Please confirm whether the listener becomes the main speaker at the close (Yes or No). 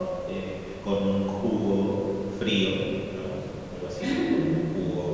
No